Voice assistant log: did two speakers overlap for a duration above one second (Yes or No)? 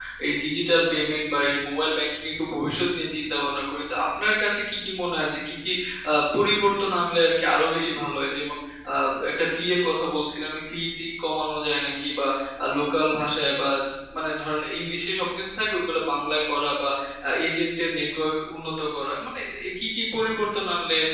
No